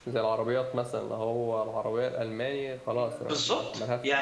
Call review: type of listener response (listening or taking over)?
taking over